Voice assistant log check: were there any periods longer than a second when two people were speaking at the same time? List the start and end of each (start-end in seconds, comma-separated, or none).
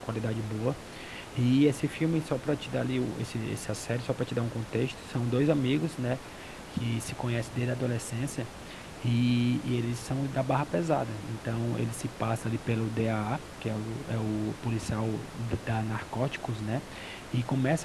none